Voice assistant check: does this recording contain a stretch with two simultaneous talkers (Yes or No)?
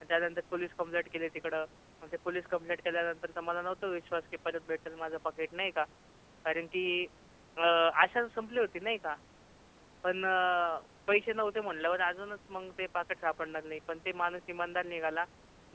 No